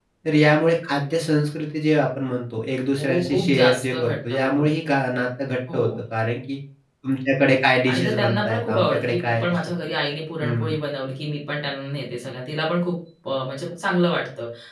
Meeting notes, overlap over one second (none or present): present